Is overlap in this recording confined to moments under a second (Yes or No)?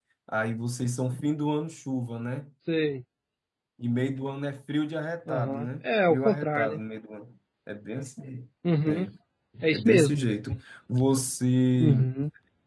No